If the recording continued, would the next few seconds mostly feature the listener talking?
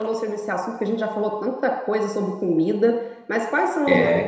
Yes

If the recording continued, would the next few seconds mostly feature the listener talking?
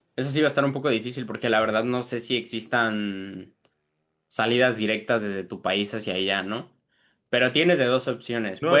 Yes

